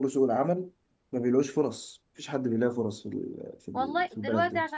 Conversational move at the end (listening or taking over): taking over